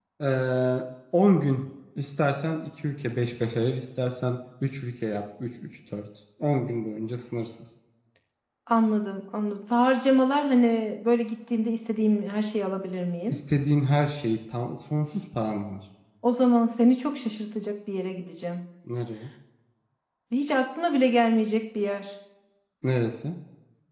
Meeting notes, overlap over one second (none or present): none